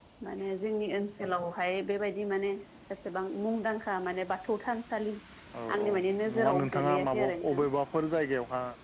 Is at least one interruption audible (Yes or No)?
Yes